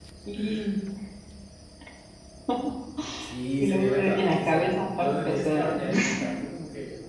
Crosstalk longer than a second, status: present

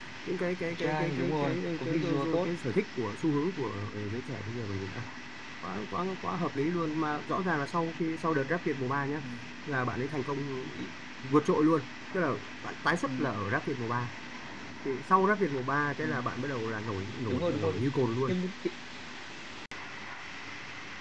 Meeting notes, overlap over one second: present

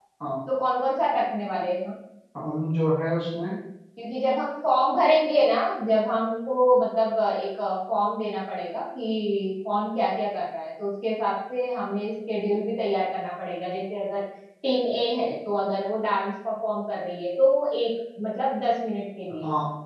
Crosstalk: none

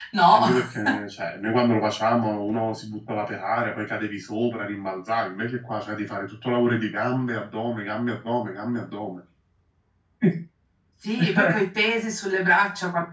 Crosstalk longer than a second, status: none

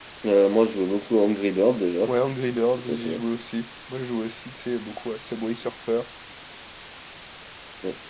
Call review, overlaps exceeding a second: none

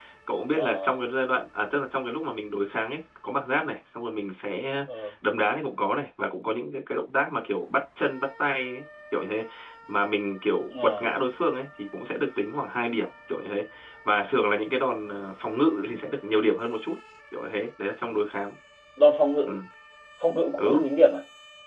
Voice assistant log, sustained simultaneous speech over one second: none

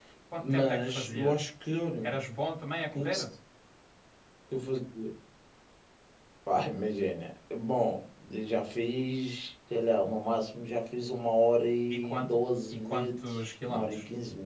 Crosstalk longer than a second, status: present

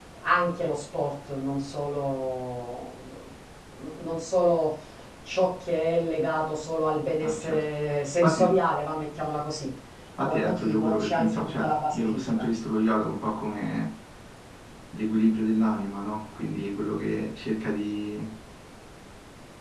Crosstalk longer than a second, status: present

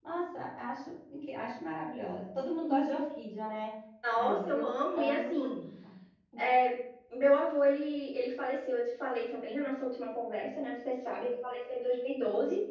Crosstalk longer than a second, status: present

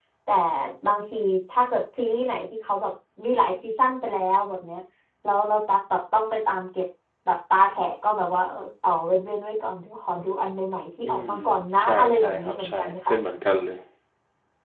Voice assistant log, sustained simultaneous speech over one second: present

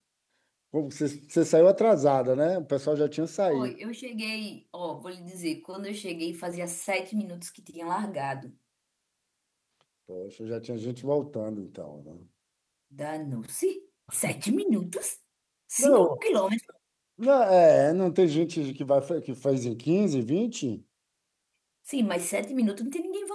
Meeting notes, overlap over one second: none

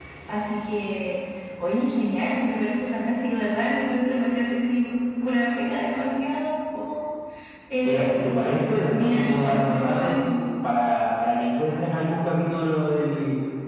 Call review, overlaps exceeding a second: present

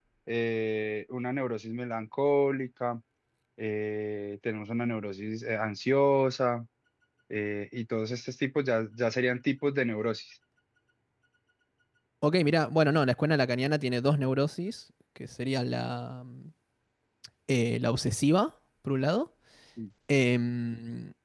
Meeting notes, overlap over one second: none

